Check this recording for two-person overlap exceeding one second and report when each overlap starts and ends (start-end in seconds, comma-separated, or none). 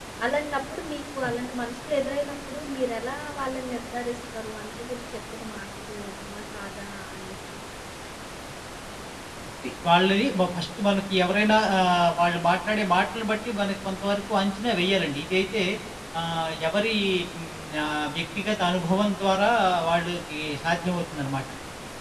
none